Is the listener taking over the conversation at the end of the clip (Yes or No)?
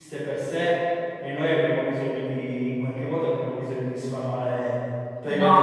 Yes